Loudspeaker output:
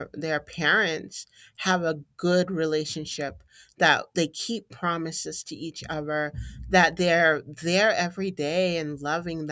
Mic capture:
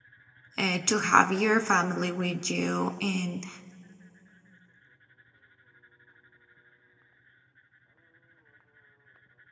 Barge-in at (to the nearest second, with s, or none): 1 s